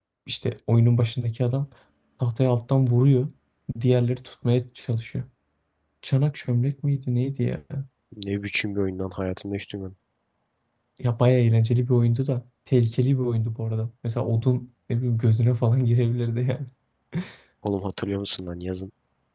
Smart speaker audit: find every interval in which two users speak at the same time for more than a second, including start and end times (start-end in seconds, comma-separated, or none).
none